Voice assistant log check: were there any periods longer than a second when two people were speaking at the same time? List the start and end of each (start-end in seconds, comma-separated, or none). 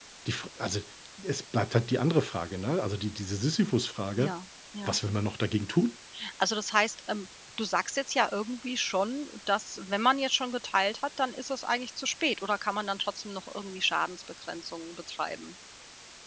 none